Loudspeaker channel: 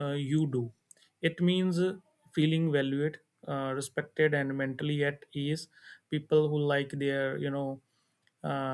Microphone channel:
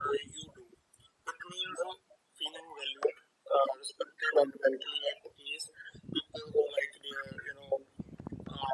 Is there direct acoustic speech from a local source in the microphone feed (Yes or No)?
No